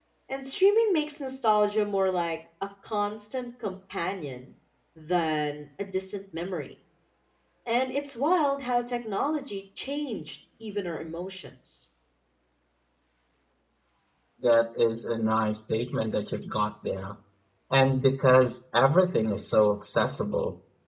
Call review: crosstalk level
none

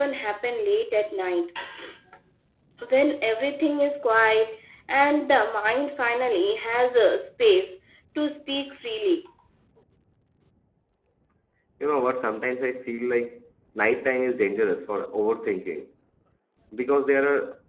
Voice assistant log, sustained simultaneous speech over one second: none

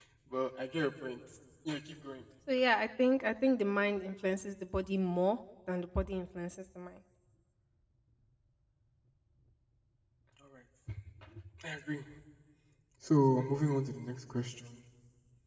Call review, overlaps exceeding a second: none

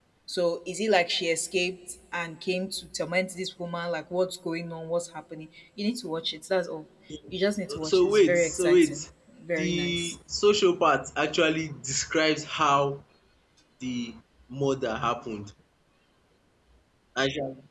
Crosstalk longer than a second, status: present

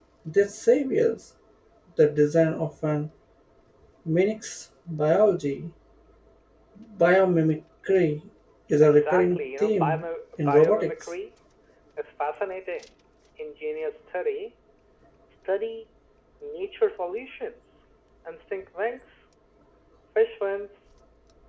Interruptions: present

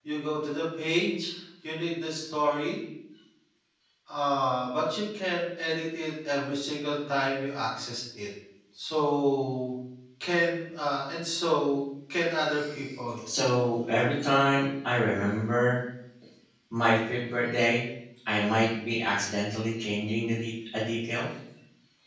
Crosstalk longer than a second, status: none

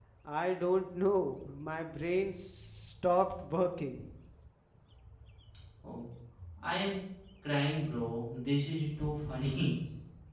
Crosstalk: none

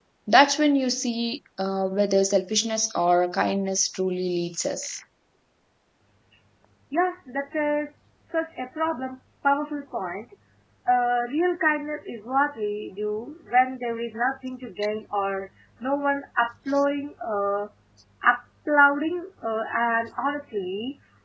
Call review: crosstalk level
none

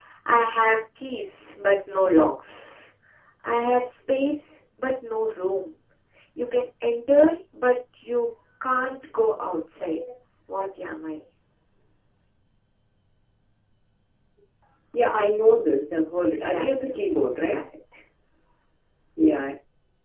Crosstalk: present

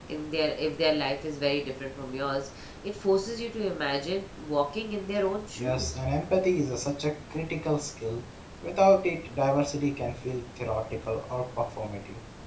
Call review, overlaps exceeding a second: none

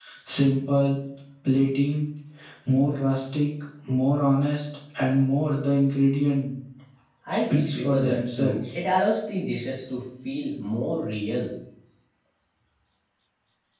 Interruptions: present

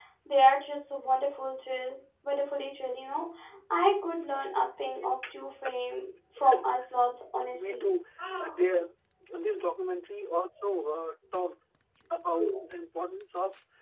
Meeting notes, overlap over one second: none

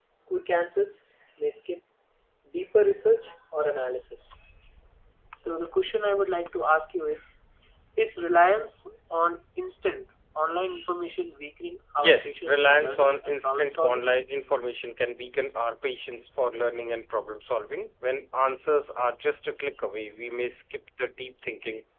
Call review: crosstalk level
present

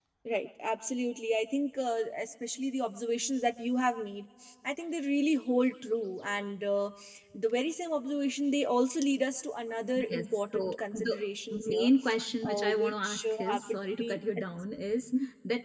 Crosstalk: present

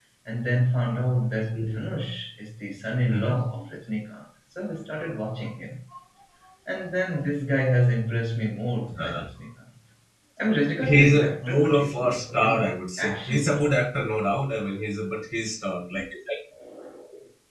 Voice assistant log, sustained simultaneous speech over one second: present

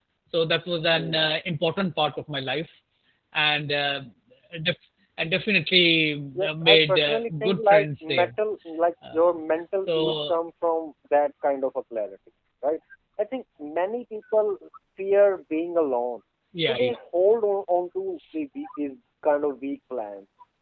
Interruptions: present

